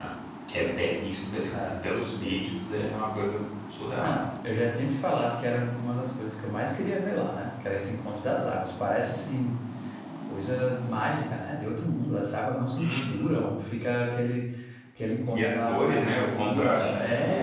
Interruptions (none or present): present